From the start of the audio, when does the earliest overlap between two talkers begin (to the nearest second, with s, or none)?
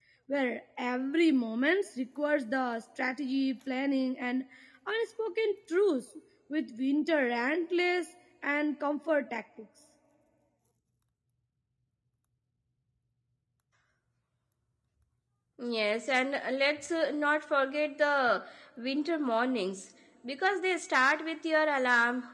none